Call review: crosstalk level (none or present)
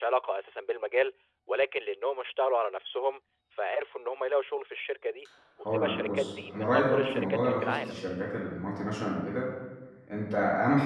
present